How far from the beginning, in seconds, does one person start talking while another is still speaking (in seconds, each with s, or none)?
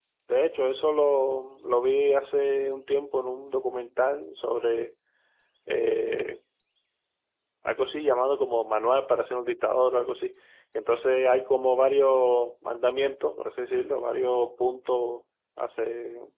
none